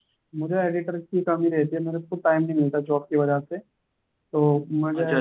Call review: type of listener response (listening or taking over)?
taking over